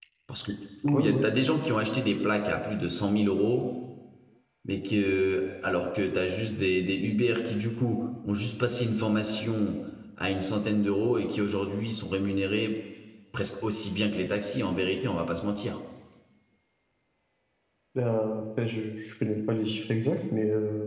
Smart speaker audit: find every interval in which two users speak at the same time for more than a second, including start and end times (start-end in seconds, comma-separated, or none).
none